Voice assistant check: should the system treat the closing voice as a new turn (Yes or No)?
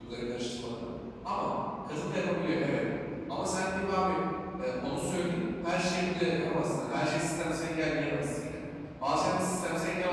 No